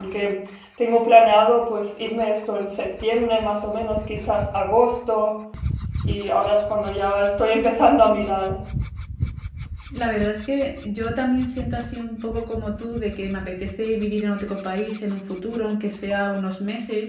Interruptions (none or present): none